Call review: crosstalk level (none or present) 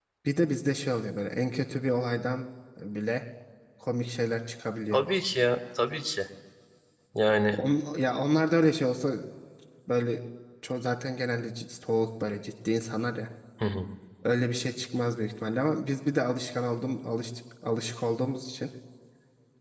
none